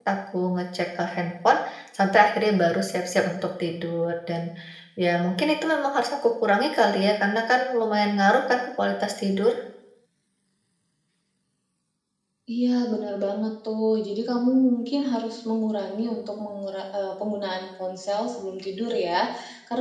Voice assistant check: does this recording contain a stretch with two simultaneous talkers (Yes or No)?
No